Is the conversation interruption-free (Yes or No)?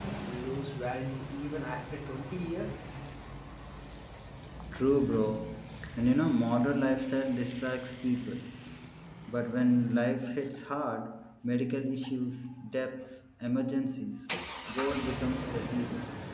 Yes